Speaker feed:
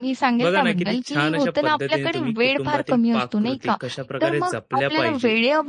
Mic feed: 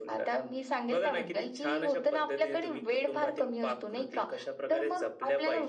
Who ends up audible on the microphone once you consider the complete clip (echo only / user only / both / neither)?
echo only